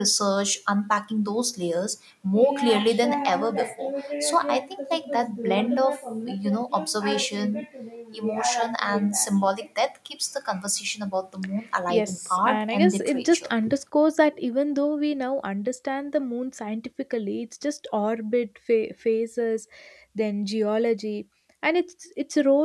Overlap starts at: 11.9 s

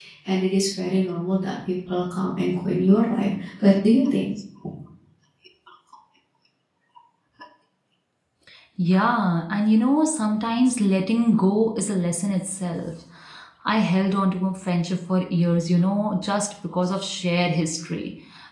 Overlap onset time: none

